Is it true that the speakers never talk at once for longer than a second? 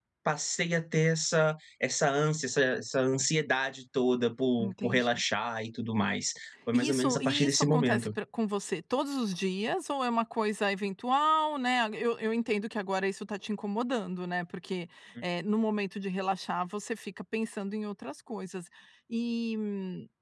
No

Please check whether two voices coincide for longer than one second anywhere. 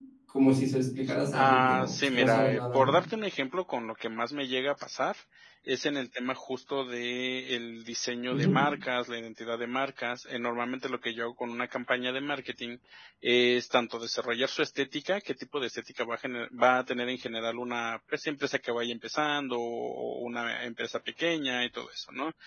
Yes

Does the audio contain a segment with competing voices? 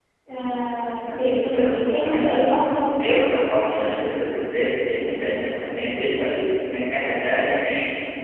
Yes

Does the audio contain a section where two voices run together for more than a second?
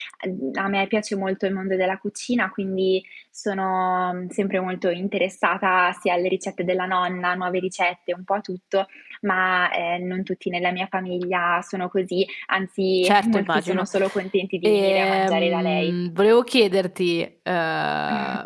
Yes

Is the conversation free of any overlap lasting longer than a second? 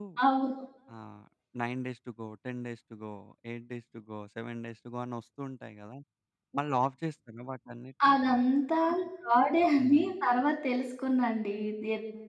Yes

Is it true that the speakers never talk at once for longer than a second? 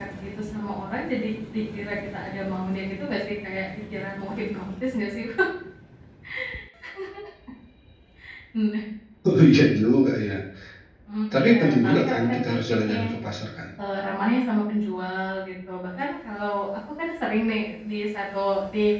No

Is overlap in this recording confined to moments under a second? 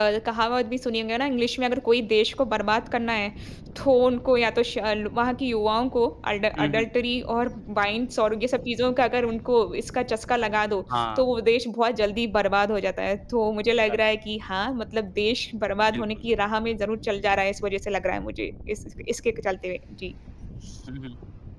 Yes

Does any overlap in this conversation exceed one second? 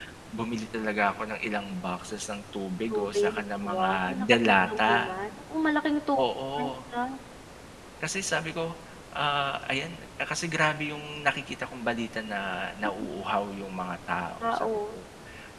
Yes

